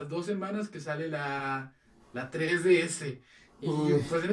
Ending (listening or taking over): listening